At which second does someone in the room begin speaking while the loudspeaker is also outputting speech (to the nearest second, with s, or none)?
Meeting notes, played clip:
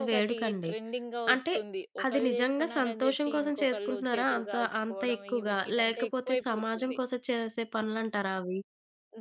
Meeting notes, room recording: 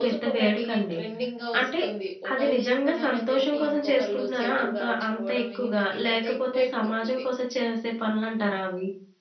none